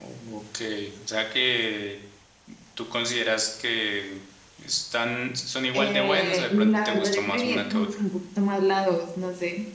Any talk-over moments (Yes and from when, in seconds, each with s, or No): Yes, from 5.7 s